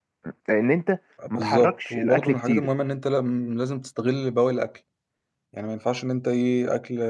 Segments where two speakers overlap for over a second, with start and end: 1.3-2.7

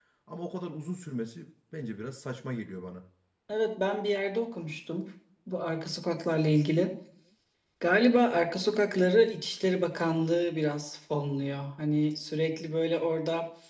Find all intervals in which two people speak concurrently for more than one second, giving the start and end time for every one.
none

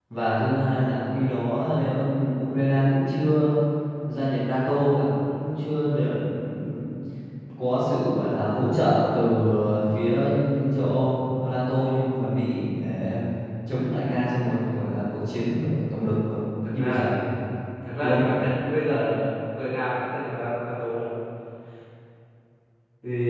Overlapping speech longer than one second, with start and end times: none

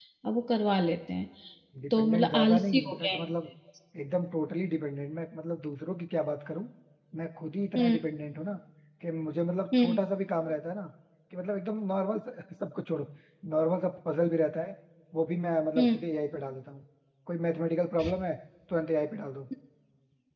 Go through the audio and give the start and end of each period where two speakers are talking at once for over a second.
1.9-3.2

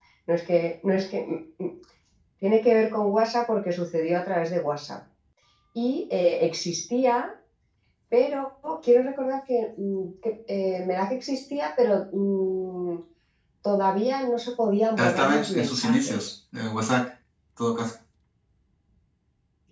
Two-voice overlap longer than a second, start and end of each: 15.0-16.3

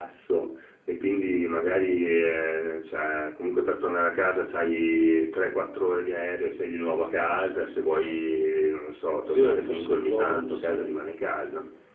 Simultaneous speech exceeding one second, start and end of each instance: 9.3-10.9

